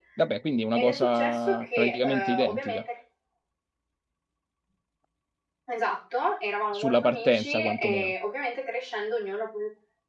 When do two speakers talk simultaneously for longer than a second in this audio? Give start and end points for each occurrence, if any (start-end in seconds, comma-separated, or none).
0.8-2.8, 6.7-8.1